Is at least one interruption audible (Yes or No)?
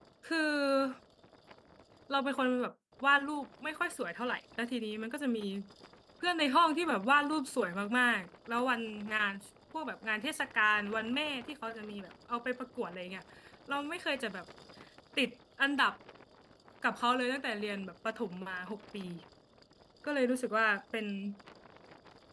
No